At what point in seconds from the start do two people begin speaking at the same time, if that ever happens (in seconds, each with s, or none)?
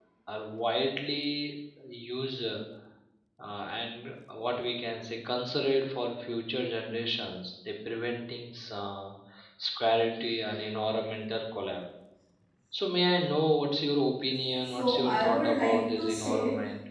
14.6 s